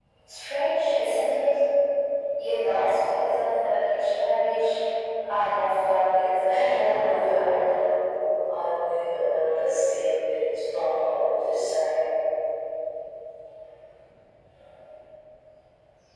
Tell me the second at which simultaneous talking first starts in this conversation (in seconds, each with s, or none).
6.5 s